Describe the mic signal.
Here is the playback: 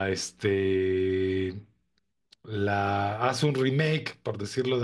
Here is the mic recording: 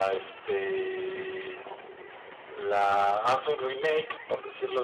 echo only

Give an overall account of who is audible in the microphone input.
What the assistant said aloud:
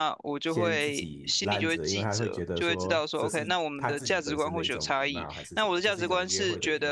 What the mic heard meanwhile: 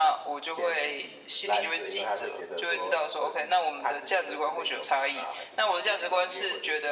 echo only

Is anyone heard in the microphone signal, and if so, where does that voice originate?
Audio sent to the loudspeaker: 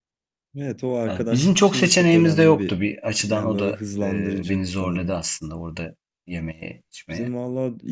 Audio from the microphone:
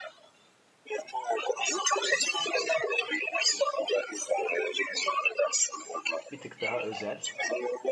both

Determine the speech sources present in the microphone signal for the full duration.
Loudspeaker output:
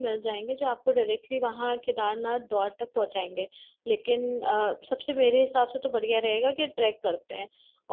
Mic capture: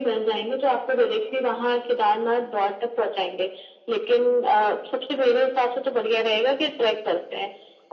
echo only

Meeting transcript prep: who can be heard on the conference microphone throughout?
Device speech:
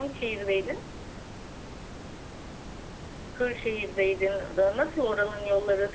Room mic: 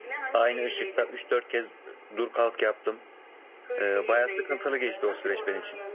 both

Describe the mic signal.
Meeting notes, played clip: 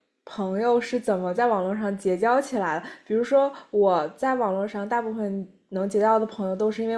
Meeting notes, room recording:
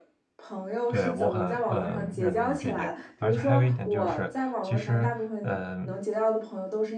both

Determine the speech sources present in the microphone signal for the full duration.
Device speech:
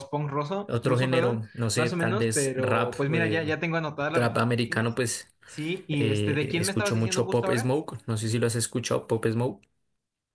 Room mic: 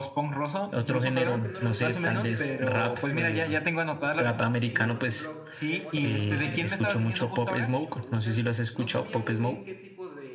both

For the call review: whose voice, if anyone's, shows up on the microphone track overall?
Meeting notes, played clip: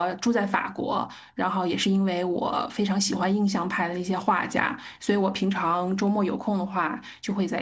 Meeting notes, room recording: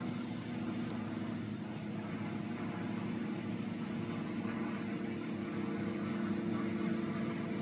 neither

